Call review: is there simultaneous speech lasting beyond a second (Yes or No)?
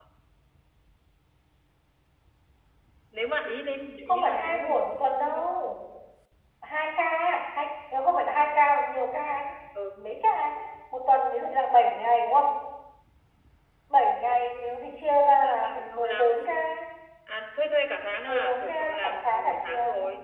Yes